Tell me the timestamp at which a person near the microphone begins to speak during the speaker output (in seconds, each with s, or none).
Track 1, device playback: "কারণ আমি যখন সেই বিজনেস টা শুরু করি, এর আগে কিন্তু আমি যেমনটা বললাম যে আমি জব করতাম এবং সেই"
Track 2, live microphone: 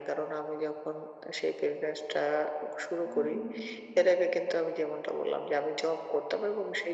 3.0 s